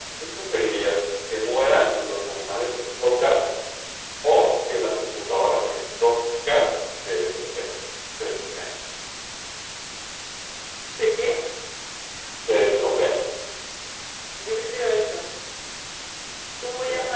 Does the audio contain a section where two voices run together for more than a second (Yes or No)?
No